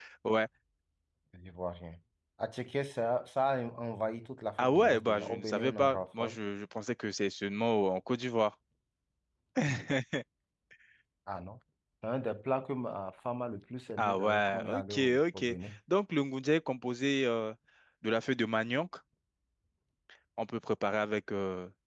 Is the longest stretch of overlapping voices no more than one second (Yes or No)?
No